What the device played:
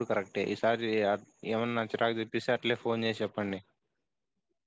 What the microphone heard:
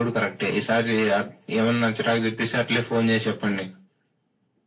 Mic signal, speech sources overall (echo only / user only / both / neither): echo only